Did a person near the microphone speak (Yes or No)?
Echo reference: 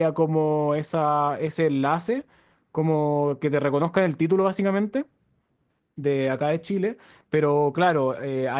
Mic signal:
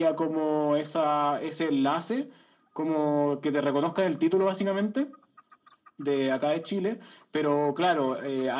No